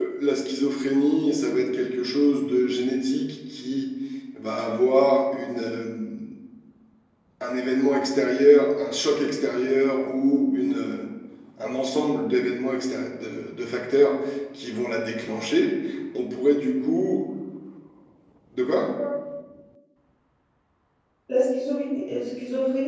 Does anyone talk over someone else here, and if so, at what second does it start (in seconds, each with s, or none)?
none